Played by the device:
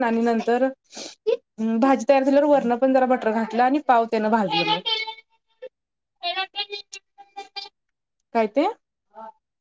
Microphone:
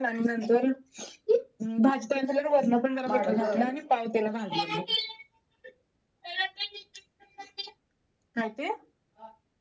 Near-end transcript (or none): माडग.